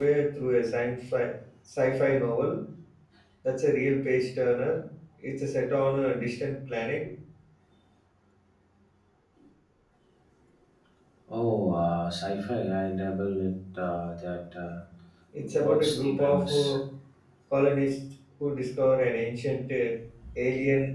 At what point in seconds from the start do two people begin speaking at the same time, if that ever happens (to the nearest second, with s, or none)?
15 s